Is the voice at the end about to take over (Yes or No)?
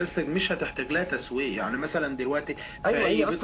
Yes